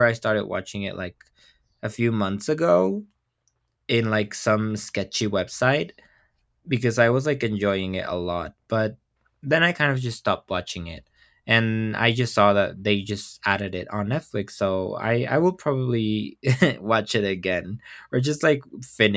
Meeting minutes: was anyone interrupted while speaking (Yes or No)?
No